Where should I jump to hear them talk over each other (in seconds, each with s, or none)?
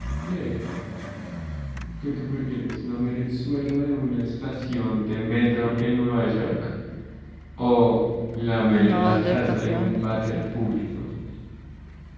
8.7 s